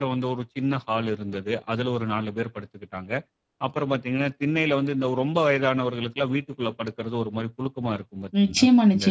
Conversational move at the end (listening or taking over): taking over